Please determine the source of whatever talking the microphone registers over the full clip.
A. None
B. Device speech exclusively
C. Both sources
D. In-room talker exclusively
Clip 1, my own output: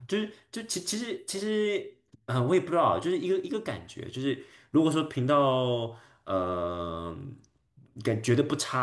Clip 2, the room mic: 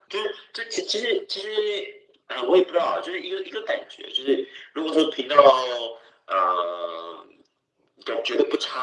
B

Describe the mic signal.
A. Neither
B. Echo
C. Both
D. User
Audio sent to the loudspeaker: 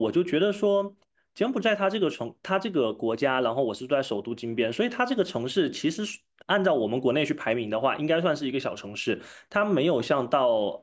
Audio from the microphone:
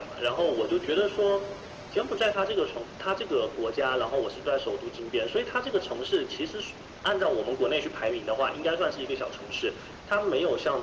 B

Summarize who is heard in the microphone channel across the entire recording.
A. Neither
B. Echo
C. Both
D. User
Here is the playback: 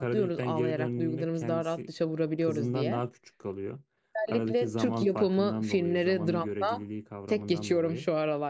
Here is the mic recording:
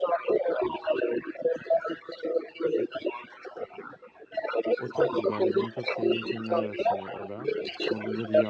C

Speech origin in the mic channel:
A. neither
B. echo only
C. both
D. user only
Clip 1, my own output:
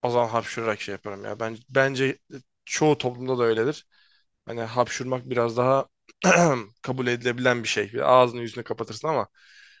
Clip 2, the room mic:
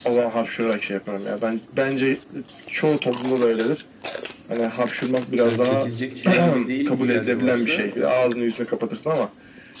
C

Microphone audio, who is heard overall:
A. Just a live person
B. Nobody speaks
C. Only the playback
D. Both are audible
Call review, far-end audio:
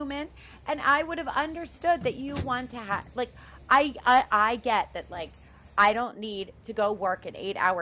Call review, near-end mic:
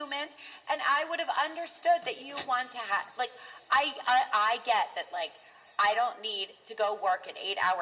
C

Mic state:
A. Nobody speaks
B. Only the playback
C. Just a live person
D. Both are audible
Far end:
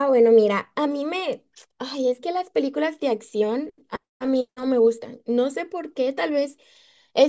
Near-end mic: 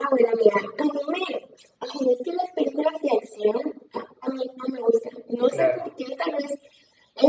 D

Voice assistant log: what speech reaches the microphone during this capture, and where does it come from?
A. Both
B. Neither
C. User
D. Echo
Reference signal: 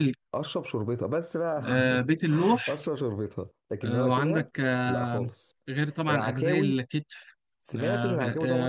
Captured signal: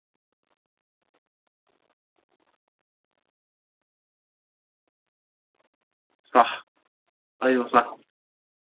C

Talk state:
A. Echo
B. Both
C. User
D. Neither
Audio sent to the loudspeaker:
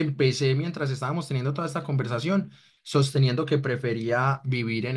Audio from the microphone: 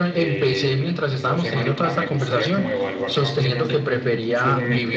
B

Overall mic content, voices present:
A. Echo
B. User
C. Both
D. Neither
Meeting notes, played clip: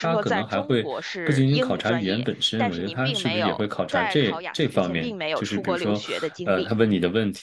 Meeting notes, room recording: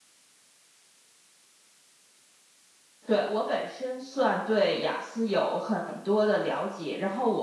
B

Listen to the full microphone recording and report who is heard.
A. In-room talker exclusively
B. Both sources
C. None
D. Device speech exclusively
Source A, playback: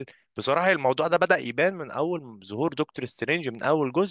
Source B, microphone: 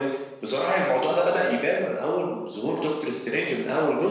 D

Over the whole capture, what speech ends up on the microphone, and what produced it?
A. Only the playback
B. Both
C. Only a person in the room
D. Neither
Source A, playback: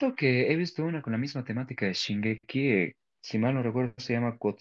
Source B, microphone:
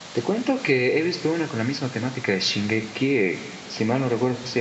A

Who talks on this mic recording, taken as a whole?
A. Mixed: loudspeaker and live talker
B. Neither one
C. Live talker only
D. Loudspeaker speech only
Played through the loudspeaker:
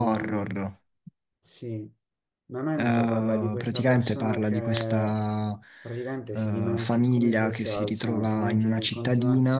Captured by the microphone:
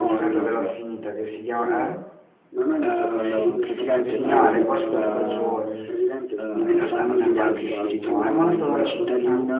A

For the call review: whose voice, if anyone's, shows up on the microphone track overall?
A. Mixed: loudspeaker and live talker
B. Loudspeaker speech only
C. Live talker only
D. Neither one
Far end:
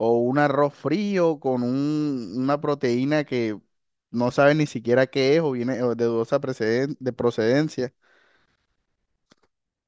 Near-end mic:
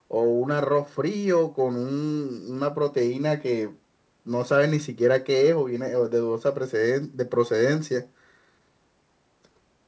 B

